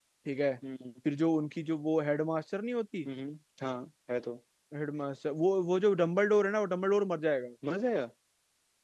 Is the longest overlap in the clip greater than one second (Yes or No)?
No